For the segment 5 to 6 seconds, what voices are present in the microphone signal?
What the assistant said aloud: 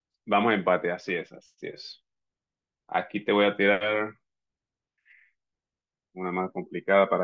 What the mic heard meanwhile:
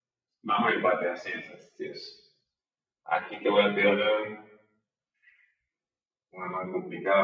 neither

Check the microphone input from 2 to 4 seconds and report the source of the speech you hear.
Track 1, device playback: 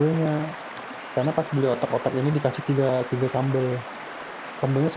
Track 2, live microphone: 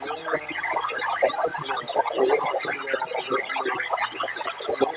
echo only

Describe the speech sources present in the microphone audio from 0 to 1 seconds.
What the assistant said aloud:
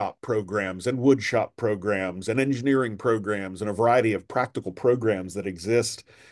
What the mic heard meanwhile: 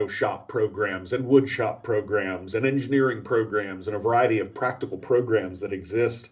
echo only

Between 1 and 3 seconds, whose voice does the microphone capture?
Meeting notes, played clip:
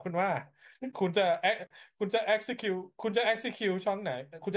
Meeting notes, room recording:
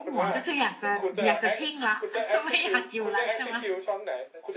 both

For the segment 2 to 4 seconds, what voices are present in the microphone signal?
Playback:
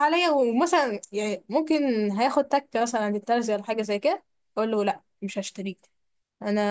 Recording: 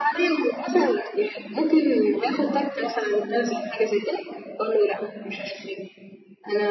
echo only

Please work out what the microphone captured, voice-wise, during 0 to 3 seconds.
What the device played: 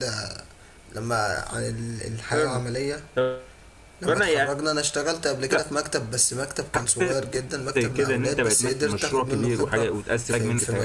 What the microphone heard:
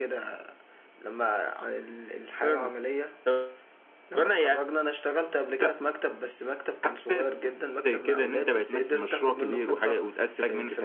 echo only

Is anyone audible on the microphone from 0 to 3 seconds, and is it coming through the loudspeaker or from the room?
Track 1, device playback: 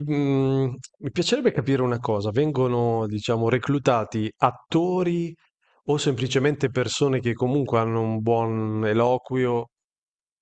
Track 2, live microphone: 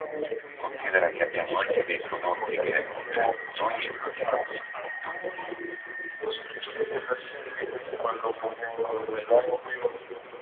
both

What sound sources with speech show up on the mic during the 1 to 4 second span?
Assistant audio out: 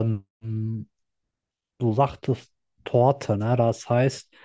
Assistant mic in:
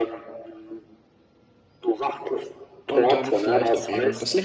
both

